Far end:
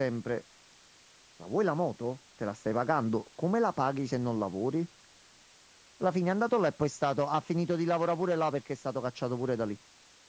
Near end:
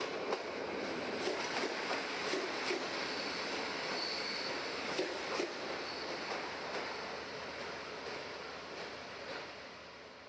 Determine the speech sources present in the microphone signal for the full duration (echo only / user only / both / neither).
neither